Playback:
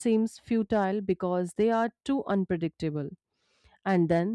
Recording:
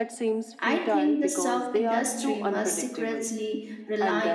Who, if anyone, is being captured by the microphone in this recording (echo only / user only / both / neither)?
both